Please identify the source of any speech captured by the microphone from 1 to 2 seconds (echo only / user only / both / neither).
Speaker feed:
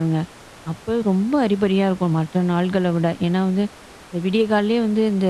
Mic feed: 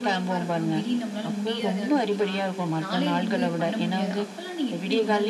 both